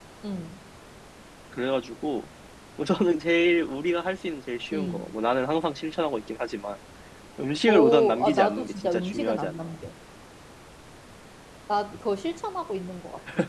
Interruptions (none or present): present